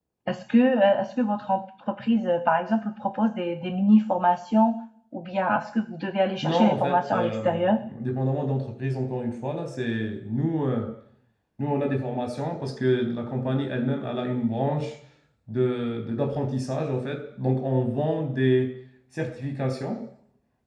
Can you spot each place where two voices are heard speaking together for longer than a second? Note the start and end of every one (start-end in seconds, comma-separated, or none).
6.4-7.8